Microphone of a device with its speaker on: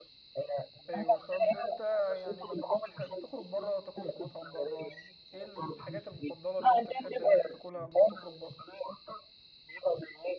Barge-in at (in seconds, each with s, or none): 0.9 s